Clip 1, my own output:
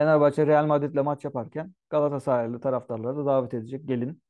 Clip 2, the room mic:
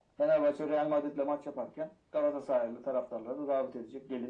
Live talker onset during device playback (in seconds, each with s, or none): none